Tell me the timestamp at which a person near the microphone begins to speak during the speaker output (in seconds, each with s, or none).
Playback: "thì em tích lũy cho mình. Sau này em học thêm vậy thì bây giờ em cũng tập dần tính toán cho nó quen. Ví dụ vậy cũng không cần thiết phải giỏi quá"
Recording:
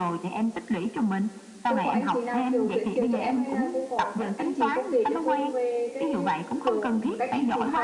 1.7 s